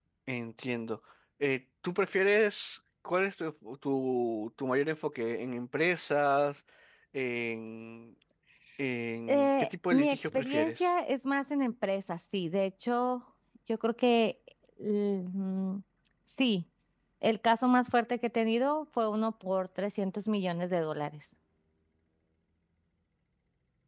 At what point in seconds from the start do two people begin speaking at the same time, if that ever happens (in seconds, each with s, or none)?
9.3 s